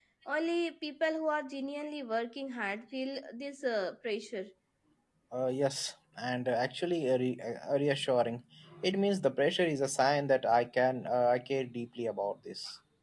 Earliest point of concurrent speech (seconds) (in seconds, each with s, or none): none